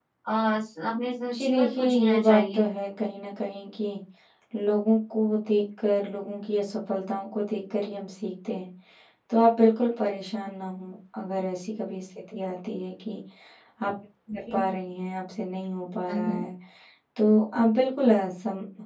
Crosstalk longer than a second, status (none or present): present